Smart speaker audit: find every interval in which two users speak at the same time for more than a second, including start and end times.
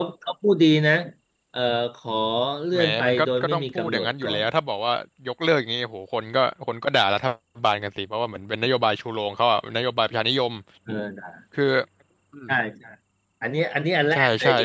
2.7-4.4

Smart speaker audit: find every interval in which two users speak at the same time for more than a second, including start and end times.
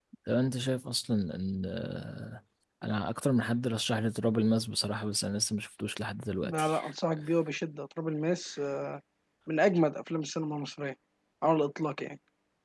none

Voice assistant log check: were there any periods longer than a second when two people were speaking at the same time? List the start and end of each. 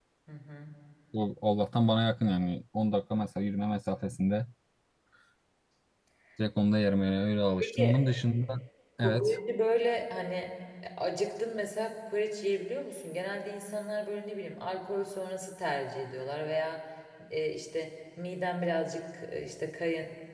none

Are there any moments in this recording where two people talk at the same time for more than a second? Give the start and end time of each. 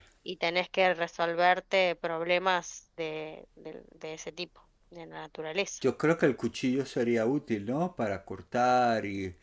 none

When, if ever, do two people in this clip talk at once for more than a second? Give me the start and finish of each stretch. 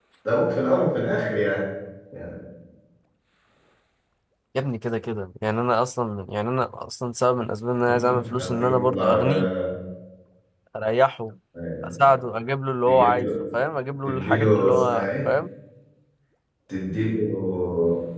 7.9-9.5, 14.1-15.3

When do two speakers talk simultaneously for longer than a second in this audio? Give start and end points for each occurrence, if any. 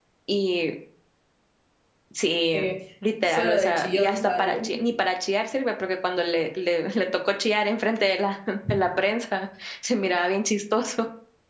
3.3-4.6

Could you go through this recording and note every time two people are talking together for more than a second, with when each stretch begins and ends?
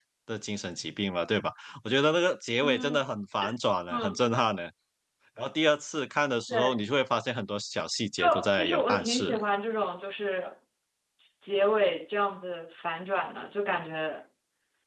8.2-9.4

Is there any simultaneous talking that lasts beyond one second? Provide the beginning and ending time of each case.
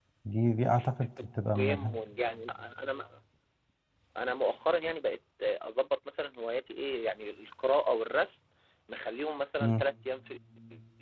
none

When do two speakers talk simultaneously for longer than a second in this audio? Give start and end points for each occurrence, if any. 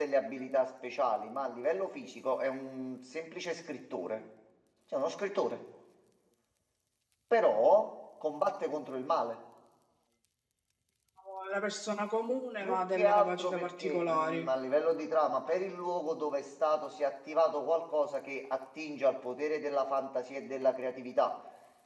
12.6-14.5

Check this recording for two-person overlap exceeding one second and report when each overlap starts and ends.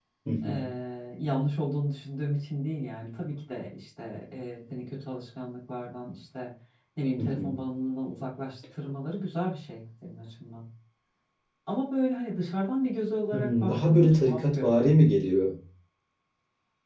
13.3-14.9

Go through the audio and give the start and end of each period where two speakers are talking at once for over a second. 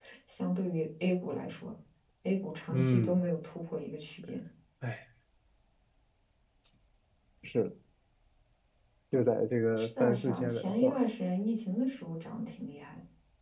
9.8-11.0

